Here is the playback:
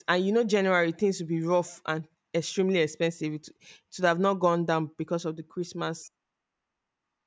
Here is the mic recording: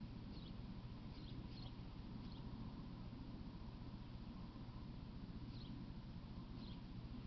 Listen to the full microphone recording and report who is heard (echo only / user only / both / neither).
neither